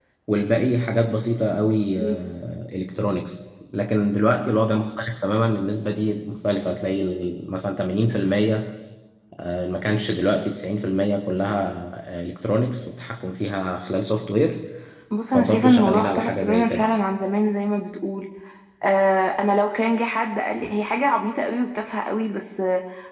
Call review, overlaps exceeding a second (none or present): present